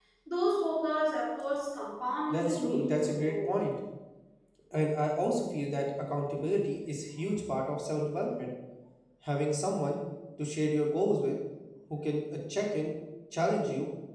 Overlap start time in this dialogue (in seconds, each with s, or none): 2.3 s